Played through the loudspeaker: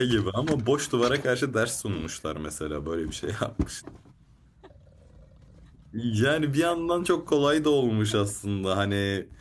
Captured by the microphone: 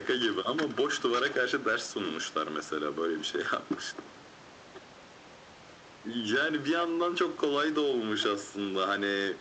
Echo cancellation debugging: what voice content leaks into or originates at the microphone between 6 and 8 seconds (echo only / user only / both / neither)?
echo only